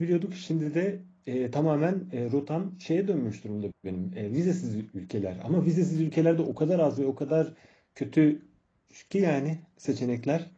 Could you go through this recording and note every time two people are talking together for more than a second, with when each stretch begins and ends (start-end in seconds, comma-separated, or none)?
none